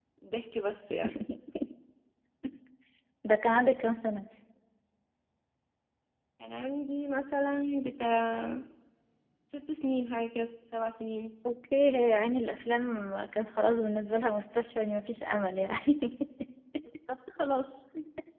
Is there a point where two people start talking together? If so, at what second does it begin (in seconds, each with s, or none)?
none